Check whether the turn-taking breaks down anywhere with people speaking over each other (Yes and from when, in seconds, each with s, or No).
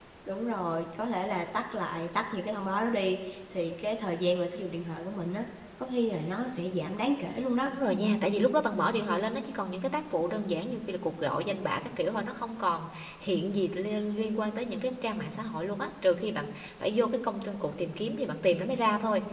No